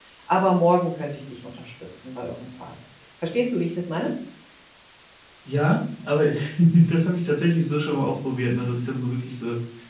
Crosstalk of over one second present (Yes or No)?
No